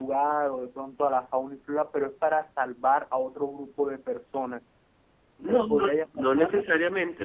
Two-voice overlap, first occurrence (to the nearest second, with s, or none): 5 s